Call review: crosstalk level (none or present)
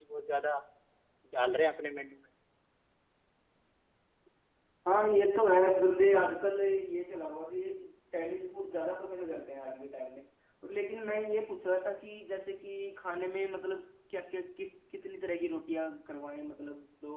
none